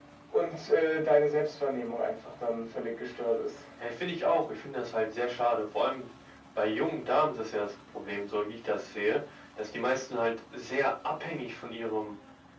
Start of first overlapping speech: none

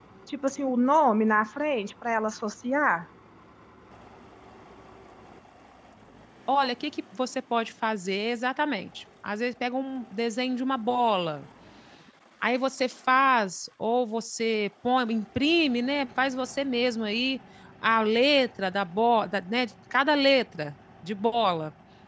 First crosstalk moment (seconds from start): none

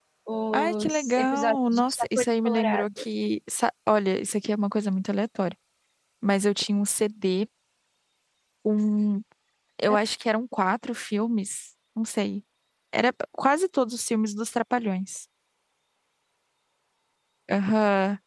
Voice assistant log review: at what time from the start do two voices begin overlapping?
0.5 s

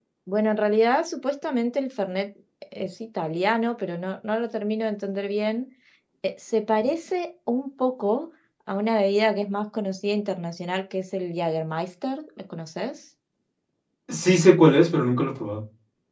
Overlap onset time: none

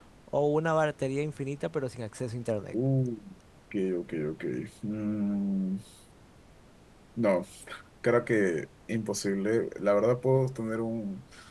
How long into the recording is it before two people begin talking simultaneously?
none

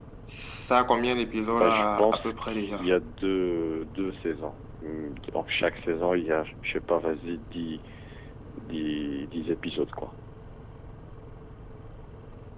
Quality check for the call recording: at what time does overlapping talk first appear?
1.5 s

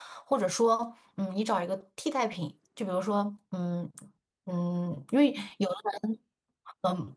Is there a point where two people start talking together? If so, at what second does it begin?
none

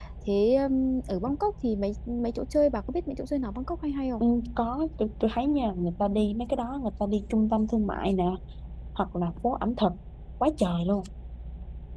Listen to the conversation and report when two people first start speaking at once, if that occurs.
none

